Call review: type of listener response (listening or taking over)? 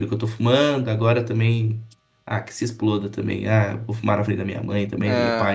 listening